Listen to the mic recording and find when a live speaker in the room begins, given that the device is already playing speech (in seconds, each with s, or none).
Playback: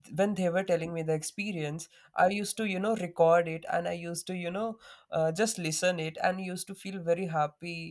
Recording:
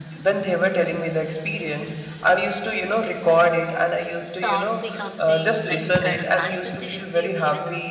4.4 s